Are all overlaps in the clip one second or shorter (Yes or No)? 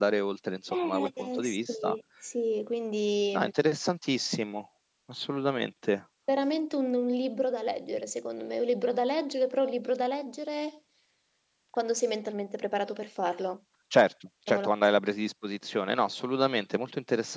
No